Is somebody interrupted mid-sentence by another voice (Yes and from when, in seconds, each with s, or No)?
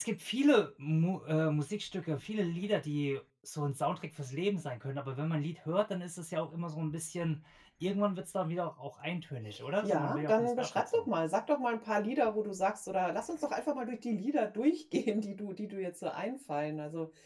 Yes, from 9.8 s